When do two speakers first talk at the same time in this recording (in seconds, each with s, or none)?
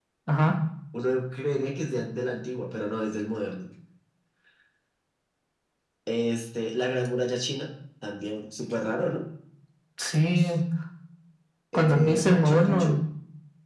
11.7 s